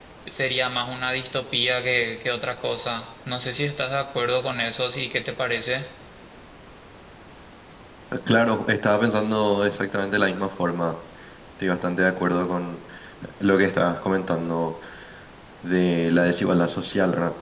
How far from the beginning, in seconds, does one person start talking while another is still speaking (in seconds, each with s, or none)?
none